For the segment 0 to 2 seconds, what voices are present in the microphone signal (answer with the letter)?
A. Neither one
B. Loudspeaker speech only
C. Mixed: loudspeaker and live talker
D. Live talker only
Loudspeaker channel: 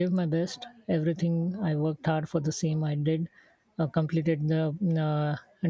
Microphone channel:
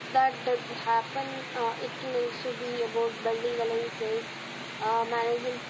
D